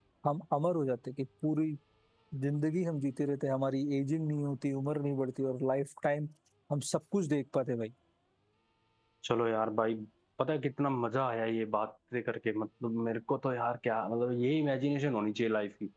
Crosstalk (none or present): none